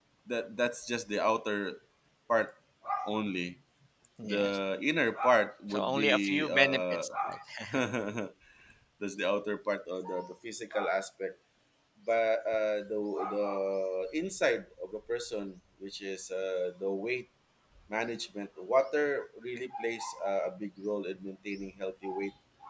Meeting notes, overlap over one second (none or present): present